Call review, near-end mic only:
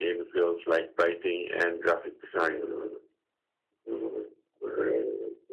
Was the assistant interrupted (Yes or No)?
Yes